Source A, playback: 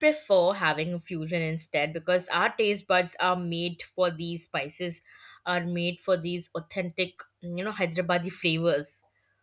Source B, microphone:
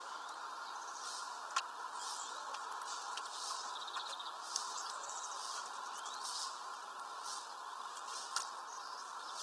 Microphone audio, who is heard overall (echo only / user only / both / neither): neither